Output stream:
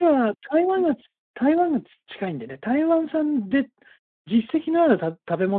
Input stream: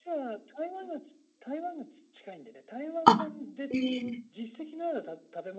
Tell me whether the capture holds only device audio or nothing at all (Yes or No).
No